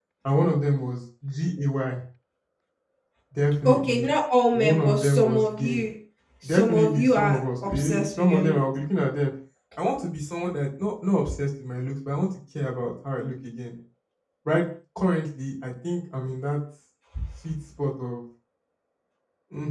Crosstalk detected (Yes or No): Yes